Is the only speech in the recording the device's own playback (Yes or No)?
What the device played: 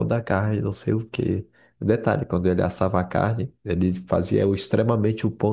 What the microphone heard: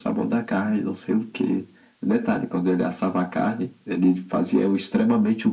Yes